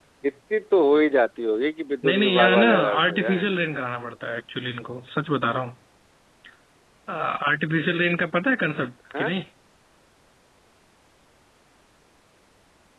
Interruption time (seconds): 2.0 s

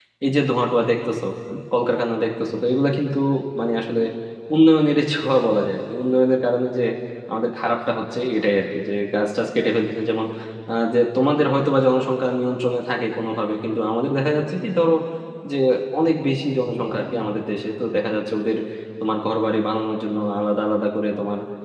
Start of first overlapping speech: none

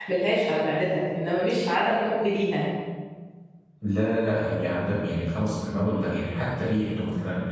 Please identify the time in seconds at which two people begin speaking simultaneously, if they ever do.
none

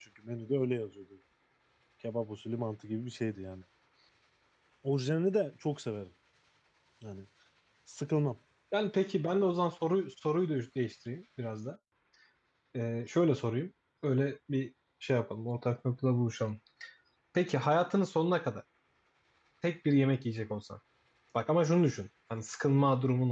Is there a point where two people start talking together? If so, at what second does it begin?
none

